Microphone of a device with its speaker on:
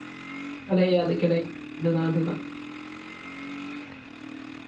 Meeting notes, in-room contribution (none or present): present